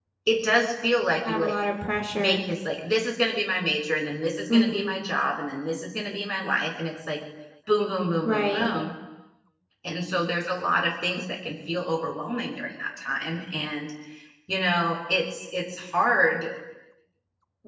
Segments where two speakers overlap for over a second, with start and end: none

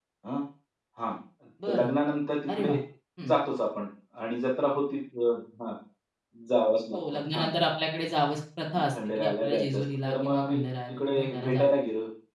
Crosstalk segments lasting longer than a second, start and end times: 8.9-11.7

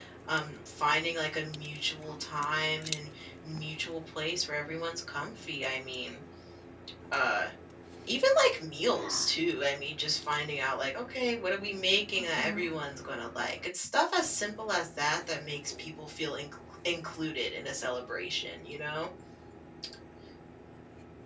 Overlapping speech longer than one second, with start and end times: none

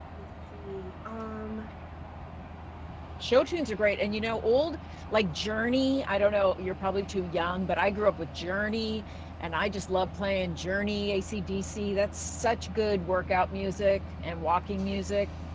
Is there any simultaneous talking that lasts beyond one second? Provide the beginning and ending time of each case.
none

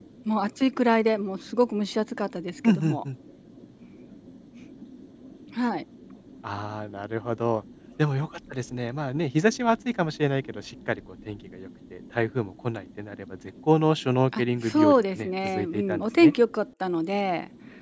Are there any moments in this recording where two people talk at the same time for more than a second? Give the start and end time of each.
14.4-16.3

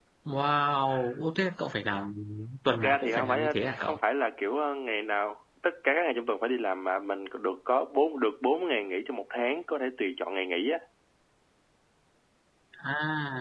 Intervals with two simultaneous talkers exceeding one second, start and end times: 2.7-4.0

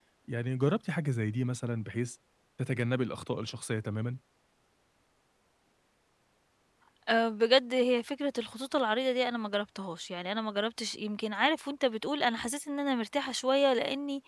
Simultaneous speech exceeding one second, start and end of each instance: none

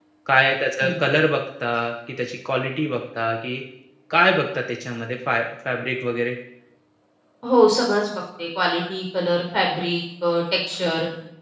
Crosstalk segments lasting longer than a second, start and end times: none

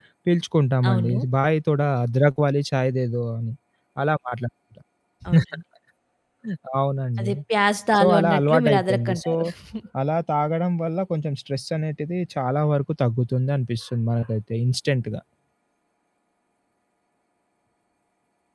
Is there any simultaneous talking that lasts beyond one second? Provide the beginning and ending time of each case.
8.0-9.3

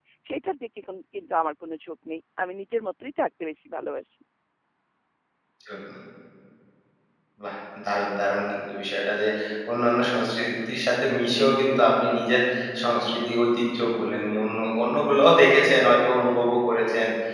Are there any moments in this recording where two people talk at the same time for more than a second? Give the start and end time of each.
none

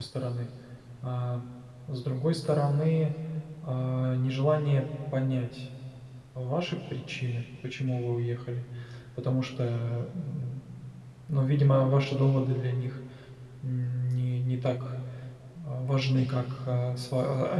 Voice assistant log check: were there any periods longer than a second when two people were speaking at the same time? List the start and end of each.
none

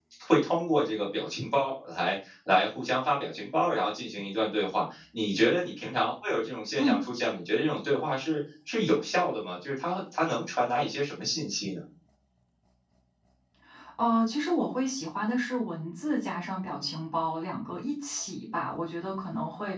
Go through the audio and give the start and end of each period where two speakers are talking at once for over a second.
none

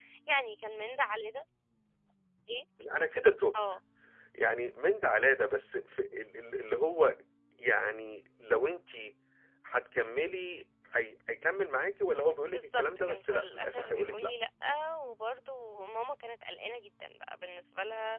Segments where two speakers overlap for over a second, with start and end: 12.5-14.3

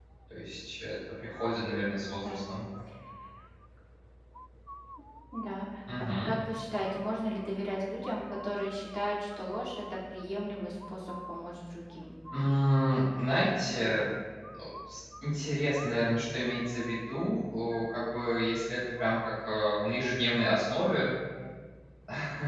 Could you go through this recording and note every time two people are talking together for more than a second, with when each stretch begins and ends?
none

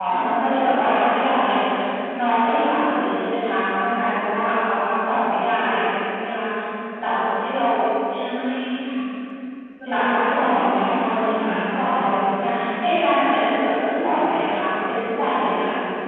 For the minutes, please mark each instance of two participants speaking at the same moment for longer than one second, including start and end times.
9.9-12.1

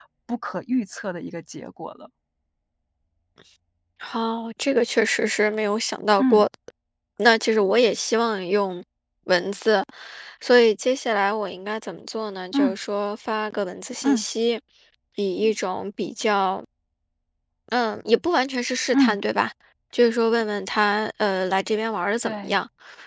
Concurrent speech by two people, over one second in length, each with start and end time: none

